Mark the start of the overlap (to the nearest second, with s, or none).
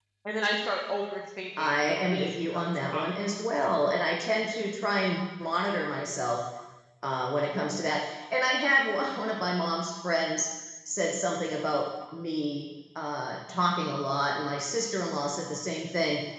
2 s